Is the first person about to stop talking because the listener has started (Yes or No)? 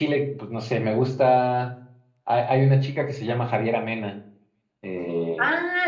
Yes